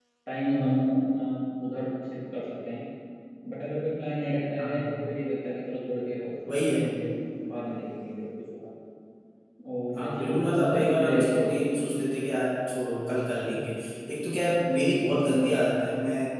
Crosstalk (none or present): present